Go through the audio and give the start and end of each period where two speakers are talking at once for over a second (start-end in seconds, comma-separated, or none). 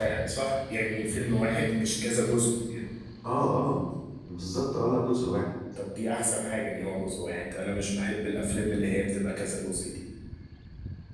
none